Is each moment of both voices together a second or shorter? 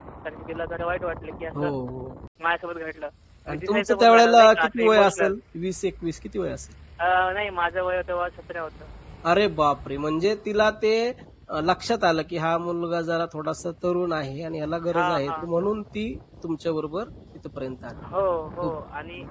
No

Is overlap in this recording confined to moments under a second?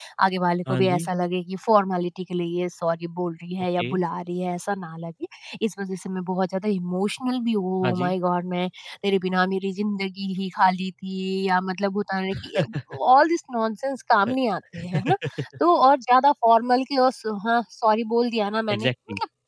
Yes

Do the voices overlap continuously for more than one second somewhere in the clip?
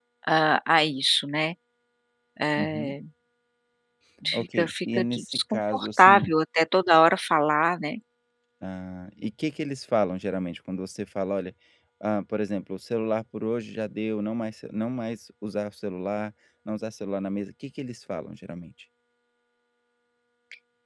Yes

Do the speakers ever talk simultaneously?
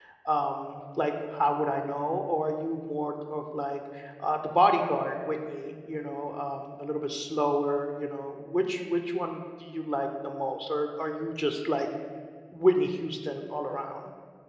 No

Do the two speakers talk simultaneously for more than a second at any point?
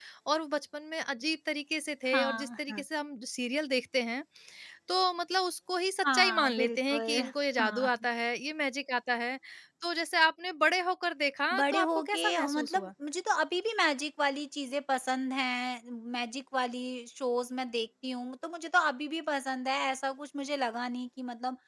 Yes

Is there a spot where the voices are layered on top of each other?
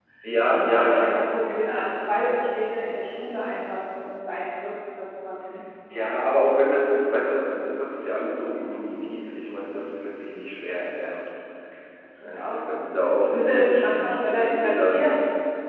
Yes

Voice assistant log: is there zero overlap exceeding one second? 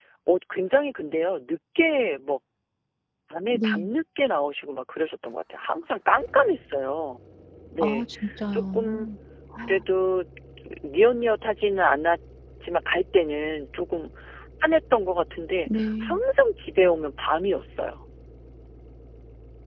Yes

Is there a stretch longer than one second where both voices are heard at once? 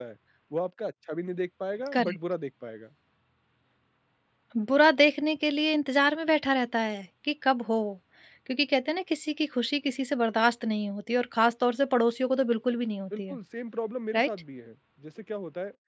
No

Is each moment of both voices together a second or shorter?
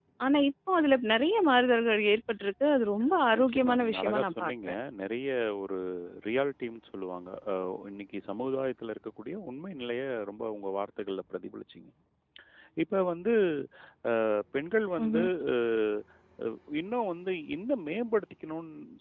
No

